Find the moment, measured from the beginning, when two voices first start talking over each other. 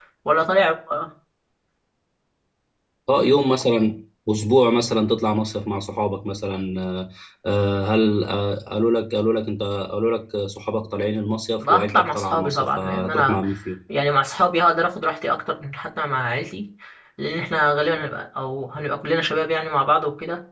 11.6 s

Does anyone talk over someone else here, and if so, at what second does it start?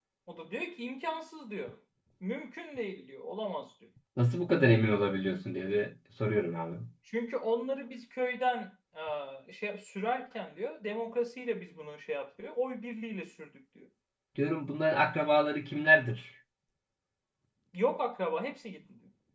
none

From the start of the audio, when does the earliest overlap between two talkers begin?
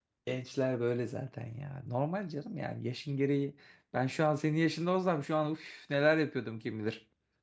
none

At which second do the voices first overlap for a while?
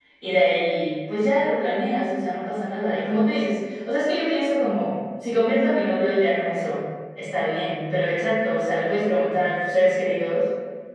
none

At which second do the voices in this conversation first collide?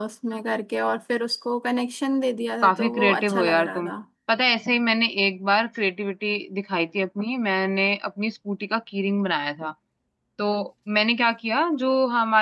2.6 s

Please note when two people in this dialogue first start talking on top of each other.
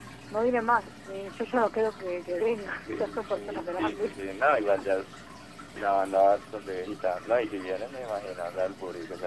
2.6 s

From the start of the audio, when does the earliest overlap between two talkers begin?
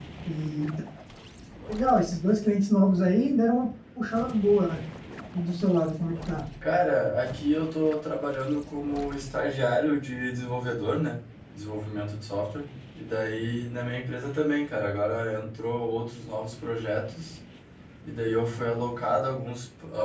none

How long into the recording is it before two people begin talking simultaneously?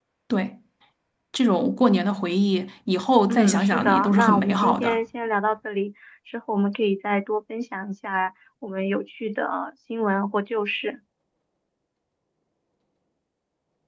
3.3 s

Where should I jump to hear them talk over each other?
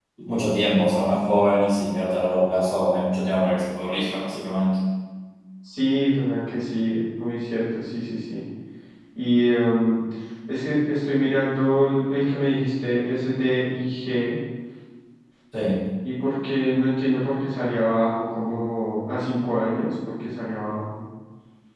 none

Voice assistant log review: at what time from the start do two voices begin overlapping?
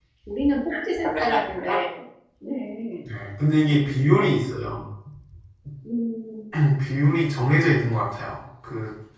none

